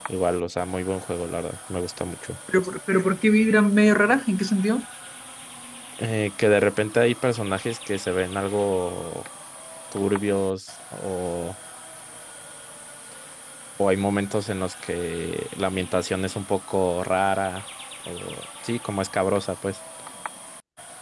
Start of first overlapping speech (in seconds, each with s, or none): none